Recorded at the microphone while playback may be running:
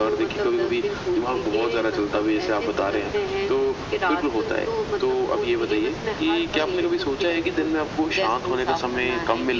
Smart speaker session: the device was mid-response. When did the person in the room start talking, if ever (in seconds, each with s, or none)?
none